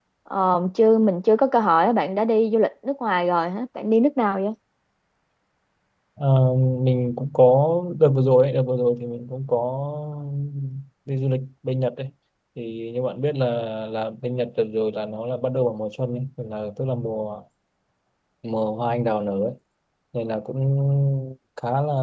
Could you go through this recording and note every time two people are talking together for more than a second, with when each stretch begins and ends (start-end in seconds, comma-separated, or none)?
none